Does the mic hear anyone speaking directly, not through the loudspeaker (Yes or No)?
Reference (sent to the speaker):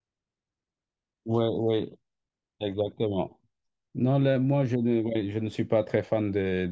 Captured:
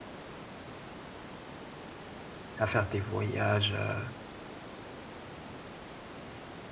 Yes